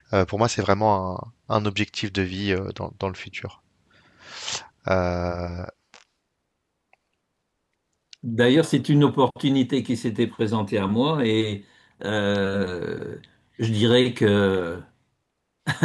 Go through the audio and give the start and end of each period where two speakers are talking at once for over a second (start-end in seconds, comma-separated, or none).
none